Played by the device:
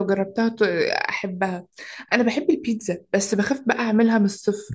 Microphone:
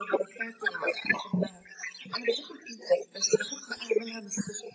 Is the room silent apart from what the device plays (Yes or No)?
Yes